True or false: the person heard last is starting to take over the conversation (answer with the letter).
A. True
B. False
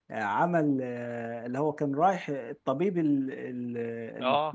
A